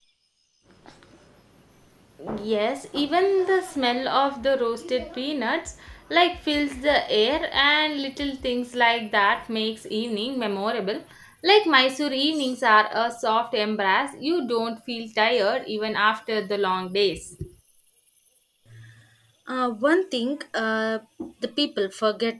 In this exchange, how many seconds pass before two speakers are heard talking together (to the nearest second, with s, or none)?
none